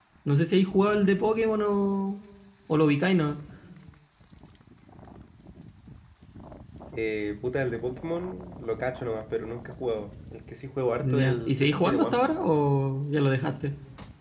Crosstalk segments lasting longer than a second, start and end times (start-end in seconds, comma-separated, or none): 11.0-12.5